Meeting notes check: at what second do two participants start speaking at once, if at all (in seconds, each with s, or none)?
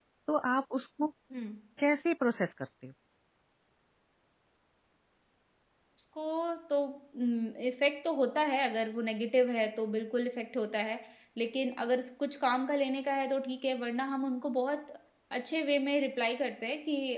none